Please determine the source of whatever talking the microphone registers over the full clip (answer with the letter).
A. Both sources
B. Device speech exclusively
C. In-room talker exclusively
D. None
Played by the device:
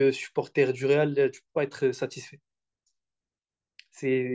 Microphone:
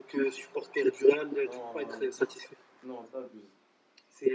A